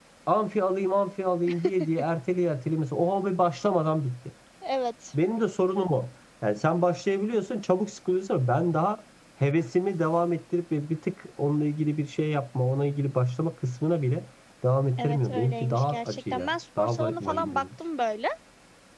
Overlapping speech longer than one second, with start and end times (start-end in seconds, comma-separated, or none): 15.0-17.6